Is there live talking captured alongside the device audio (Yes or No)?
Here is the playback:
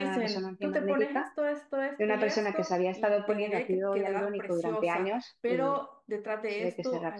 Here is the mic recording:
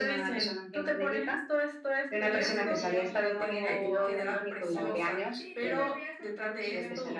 Yes